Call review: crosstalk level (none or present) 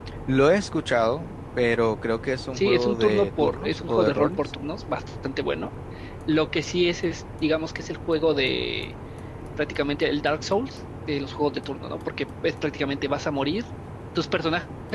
present